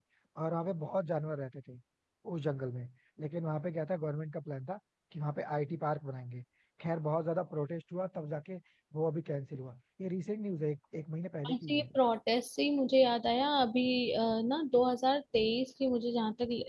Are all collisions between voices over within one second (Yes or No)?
Yes